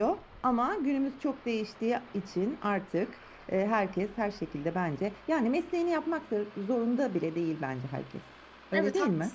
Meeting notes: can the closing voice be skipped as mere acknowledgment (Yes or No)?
No